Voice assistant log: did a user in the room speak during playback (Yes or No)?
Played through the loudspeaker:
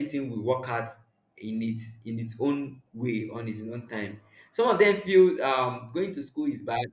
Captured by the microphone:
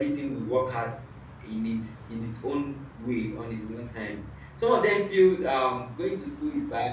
No